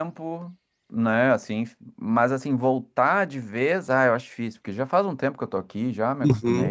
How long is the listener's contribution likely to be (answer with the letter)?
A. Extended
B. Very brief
A